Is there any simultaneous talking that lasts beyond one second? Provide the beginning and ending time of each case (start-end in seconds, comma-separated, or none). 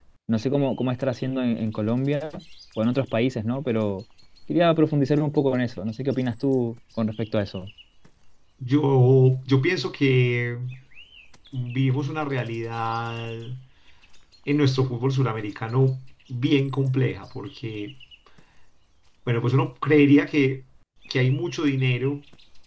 none